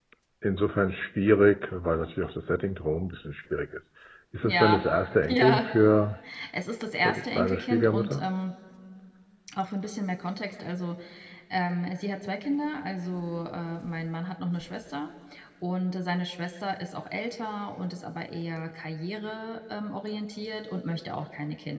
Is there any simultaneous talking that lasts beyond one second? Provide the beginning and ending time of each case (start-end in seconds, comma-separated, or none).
7.0-8.3